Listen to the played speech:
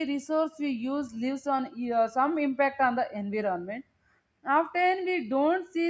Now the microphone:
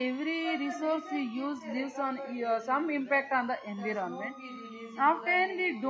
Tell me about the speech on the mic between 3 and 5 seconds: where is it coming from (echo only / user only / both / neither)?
both